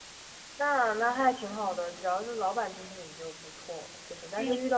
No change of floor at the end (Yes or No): Yes